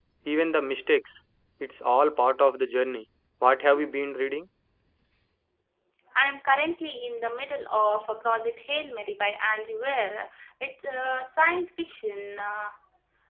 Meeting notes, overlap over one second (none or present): none